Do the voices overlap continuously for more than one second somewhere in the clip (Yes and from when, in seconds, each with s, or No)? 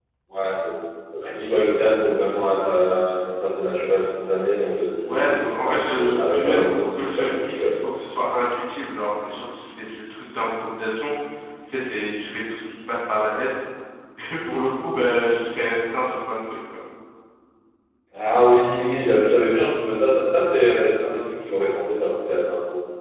Yes, from 5.0 s